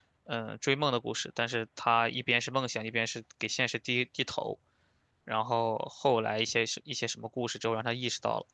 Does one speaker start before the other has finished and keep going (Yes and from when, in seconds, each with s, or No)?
No